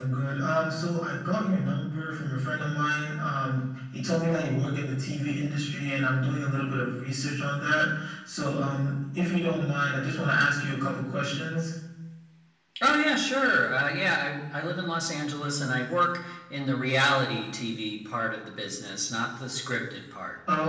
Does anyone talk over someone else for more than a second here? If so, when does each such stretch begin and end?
none

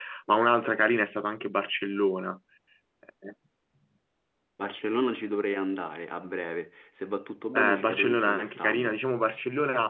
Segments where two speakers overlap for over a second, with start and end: 7.5-8.9

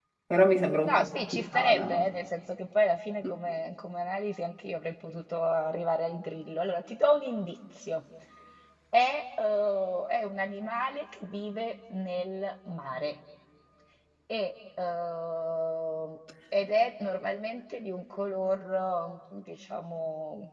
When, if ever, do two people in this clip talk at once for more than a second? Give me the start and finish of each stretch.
0.9-2.1

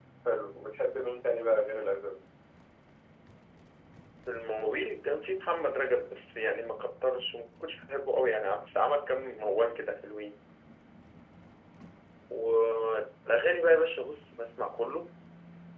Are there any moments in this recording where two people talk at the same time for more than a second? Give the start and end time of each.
none

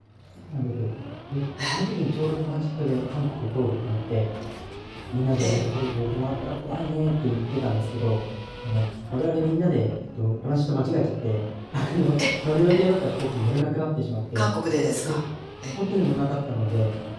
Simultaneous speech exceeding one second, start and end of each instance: none

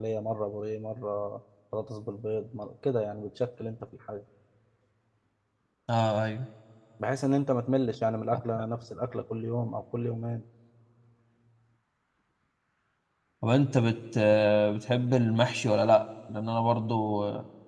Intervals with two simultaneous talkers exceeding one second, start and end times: none

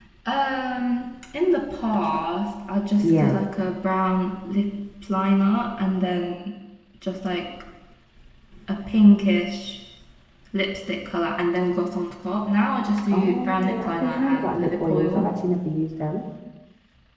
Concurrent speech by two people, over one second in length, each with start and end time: 13.1-15.3

